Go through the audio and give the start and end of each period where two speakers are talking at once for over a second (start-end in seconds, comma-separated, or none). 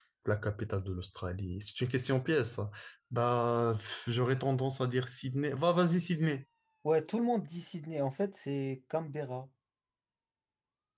none